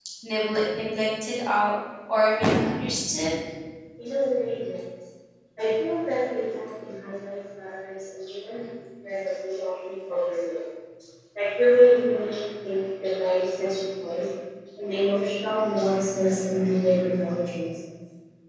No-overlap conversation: Yes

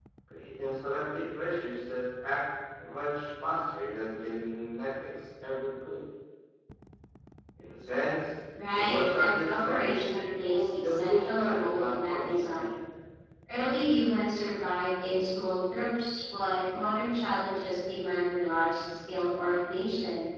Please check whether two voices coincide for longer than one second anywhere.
Yes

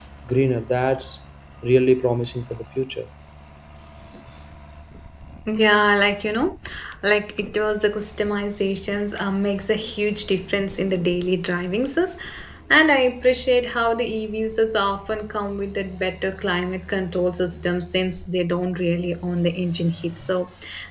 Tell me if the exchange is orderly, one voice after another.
Yes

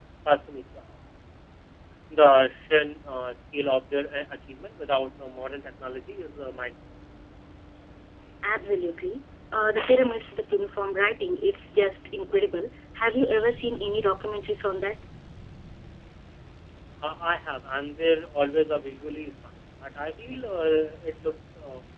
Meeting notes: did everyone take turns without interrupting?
Yes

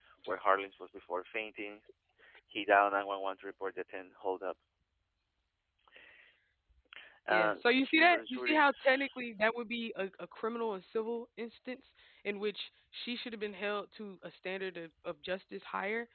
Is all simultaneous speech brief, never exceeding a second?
No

